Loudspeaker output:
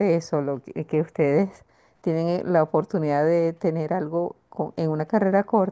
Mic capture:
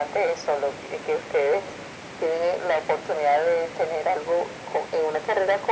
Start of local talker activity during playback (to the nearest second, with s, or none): none